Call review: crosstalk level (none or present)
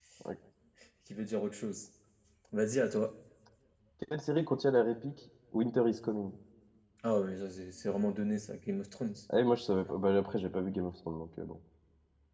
none